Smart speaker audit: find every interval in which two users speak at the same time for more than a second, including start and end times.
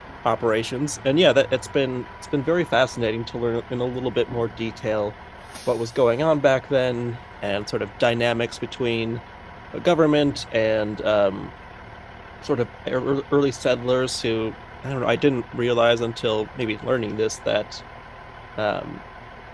none

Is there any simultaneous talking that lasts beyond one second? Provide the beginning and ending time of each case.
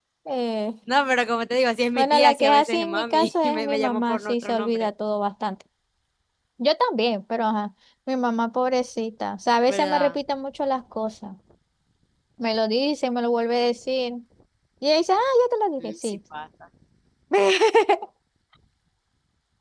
2.0-4.9

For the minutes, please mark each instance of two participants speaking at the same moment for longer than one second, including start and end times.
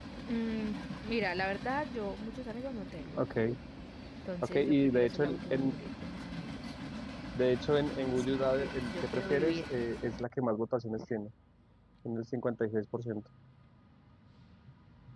4.4-5.7, 8.2-9.7

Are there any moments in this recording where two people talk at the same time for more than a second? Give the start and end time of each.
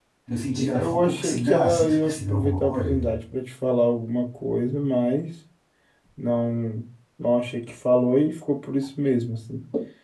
0.8-2.9

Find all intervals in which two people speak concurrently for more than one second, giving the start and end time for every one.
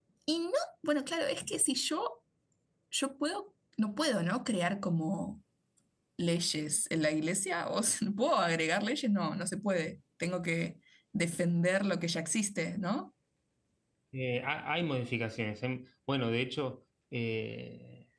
none

